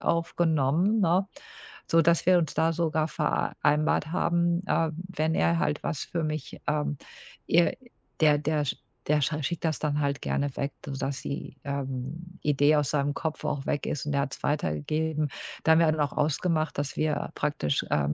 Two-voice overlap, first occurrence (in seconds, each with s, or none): none